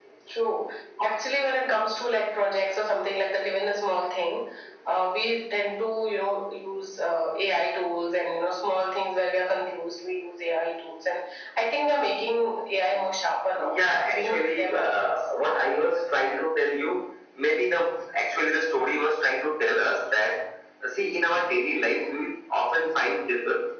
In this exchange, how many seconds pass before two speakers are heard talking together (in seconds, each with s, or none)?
13.6 s